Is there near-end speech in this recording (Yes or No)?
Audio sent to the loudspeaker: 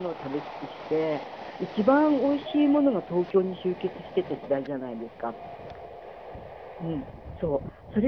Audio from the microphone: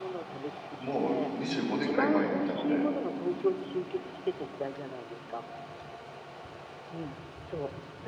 Yes